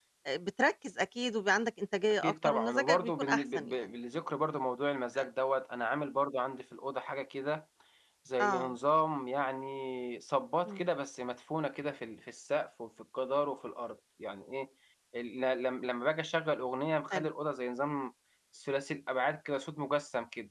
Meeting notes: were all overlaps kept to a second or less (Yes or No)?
No